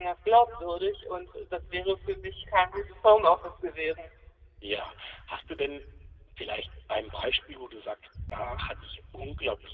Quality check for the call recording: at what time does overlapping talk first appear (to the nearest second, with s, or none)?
none